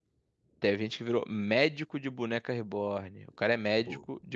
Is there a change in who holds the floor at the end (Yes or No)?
No